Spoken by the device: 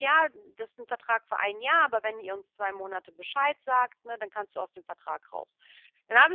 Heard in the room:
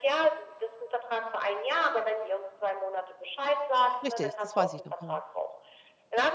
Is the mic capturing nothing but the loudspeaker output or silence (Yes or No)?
No